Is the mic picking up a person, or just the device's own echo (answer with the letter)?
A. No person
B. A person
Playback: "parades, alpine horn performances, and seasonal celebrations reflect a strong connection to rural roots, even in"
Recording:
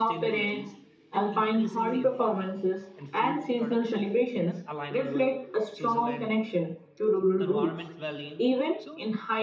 B